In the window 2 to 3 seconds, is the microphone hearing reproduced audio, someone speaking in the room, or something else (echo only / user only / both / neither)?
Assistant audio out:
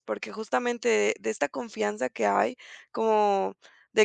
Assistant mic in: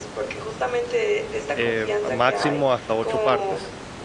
both